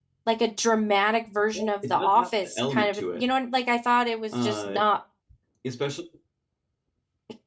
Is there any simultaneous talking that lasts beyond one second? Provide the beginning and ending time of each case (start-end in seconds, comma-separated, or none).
1.5-3.2